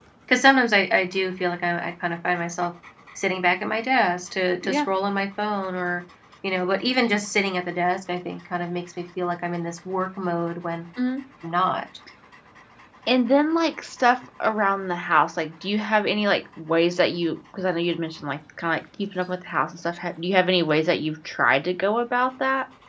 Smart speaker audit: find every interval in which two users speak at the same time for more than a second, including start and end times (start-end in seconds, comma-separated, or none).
none